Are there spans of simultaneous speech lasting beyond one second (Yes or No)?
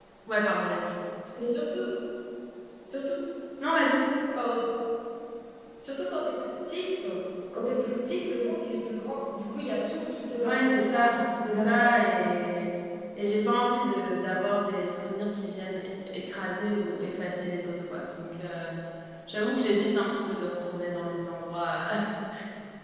Yes